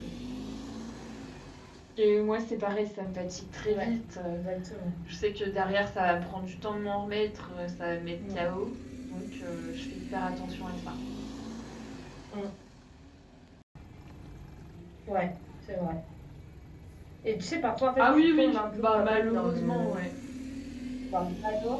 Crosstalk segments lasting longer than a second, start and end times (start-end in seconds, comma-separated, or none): 18.0-19.9